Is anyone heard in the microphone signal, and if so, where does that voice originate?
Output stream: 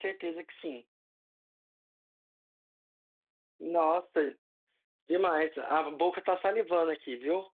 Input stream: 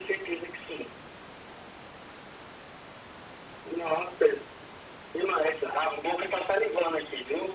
echo only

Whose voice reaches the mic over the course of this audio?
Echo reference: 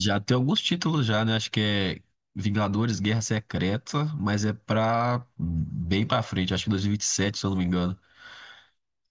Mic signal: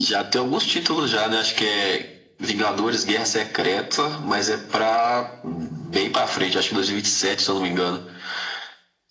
echo only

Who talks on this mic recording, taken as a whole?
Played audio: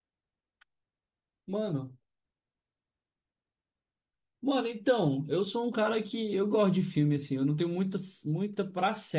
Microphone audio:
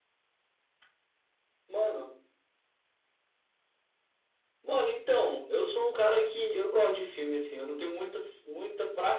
echo only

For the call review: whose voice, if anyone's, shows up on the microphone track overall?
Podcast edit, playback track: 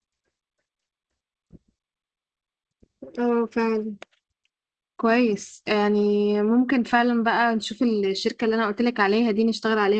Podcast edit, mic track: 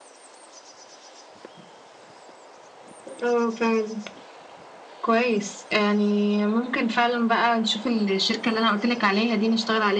echo only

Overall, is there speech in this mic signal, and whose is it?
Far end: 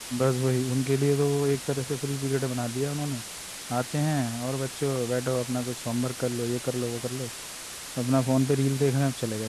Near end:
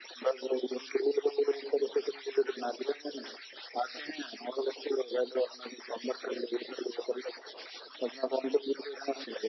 echo only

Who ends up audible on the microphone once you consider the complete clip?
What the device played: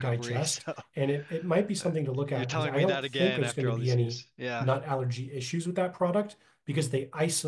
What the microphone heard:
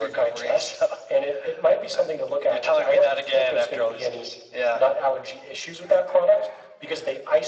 echo only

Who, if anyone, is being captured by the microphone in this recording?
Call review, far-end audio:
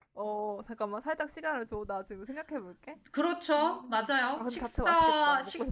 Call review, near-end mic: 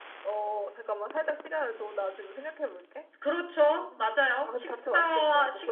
echo only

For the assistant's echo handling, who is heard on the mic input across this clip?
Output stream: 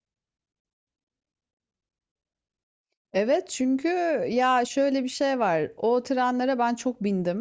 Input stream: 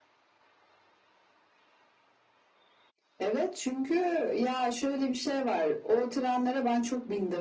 echo only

